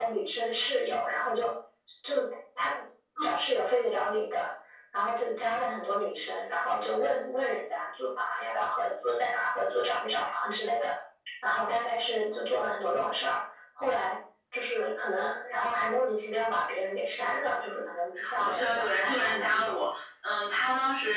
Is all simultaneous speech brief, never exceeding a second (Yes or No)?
No